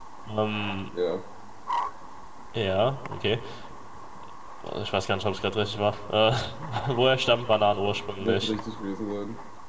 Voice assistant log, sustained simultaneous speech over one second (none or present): none